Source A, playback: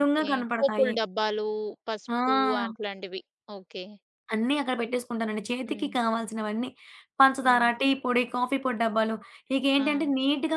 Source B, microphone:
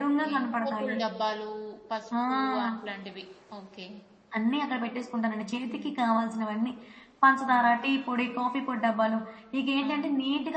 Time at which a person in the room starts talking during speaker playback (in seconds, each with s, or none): none